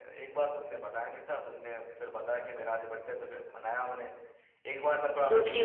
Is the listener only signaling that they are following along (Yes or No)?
Yes